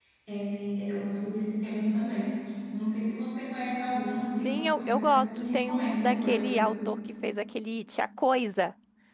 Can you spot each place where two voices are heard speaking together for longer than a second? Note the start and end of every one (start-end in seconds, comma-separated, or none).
4.4-6.7